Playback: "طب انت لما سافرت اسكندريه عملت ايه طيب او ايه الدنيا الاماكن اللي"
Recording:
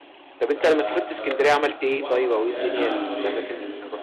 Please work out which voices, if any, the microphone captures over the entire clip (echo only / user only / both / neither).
both